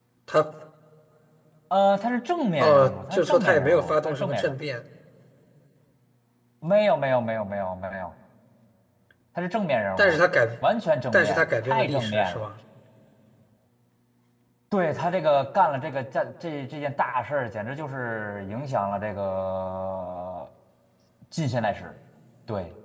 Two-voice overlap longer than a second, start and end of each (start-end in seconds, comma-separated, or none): 2.6-4.5, 11.1-12.4